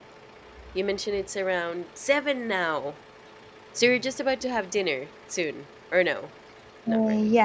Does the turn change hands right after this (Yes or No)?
Yes